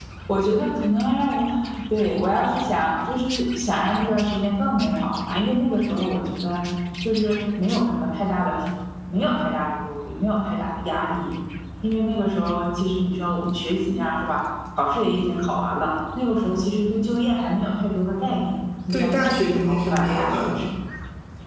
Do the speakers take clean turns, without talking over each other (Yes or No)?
No